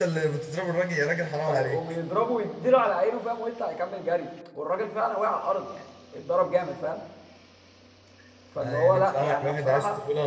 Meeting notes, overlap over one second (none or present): present